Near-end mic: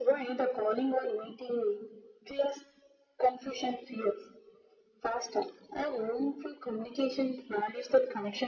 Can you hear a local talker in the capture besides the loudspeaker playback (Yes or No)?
No